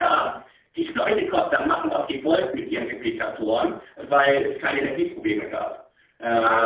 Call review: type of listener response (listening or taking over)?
taking over